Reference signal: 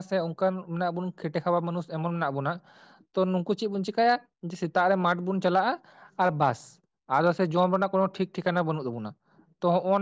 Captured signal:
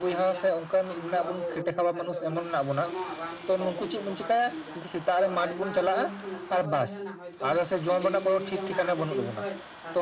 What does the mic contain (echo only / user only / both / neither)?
both